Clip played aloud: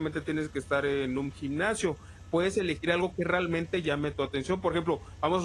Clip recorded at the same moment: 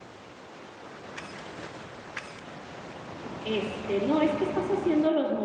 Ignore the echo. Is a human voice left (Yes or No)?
Yes